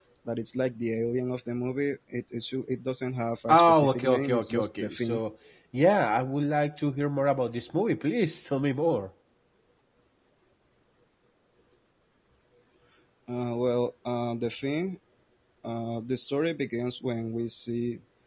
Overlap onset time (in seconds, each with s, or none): 3.5 s